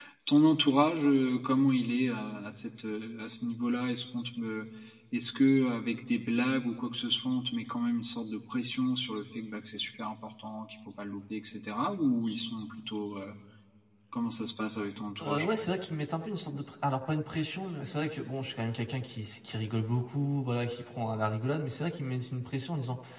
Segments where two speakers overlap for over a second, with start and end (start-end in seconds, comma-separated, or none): none